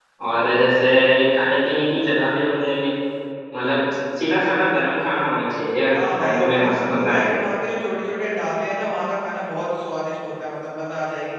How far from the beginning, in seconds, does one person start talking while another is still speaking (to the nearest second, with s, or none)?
6 s